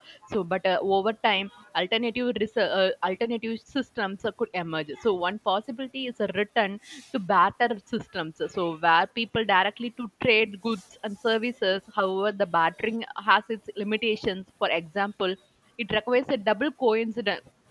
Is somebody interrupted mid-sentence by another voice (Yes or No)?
No